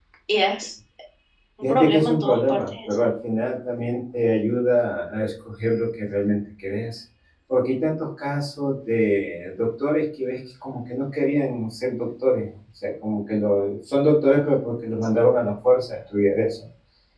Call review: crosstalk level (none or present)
present